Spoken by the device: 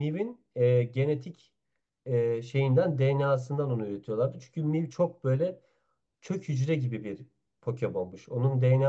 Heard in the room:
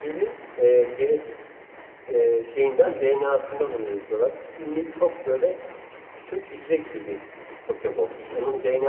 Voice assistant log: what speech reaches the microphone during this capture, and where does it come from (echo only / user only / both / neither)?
echo only